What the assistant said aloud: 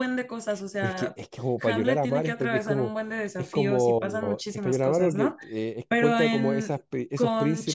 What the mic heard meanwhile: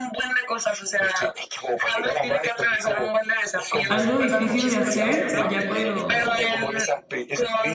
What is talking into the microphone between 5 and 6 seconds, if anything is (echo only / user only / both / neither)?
both